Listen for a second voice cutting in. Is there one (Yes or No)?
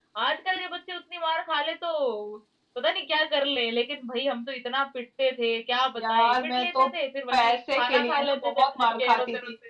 Yes